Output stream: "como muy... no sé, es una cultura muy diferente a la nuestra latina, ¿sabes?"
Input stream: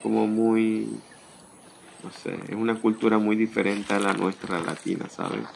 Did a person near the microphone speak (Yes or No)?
No